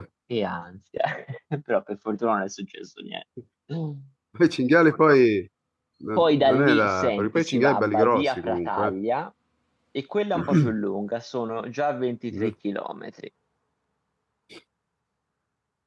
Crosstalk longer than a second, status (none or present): present